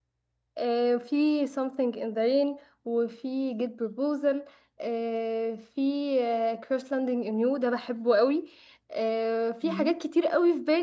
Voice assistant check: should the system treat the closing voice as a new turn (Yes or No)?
No